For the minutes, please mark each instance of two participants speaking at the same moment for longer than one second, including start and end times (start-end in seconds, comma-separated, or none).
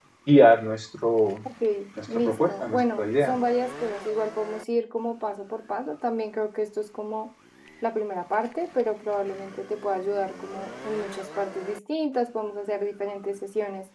2.1-3.3